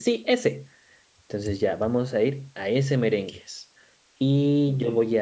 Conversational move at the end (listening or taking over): listening